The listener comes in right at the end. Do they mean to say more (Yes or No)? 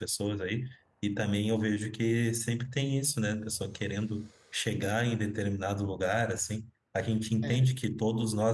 No